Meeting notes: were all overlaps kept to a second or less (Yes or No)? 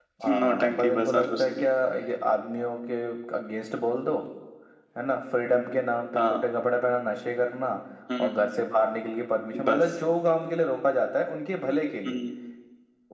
No